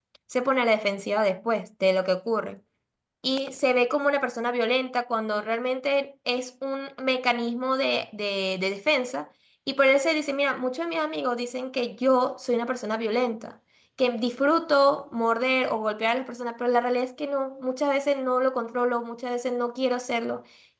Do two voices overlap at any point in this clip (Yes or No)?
No